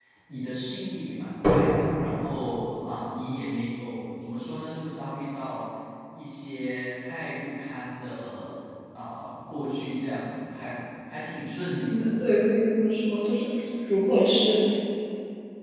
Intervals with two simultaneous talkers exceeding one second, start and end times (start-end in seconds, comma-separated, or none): none